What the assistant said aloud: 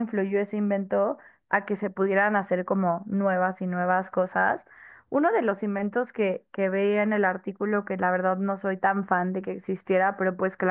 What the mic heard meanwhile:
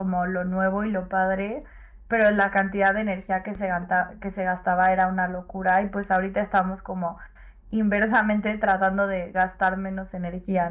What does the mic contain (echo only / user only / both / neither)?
user only